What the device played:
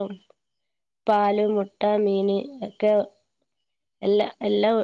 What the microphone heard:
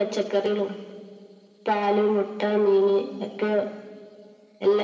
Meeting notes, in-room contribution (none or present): none